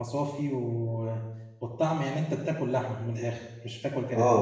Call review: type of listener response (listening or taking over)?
taking over